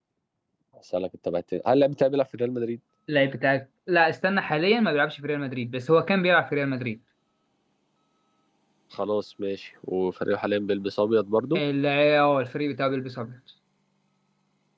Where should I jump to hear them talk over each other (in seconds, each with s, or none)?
none